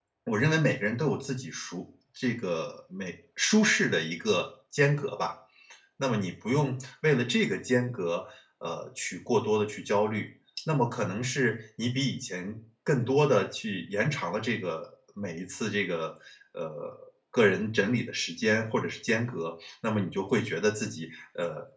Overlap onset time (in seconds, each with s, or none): none